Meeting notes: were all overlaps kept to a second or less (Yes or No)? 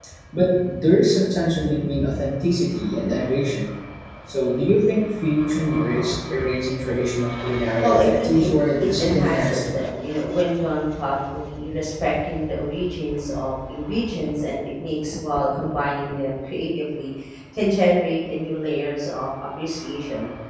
No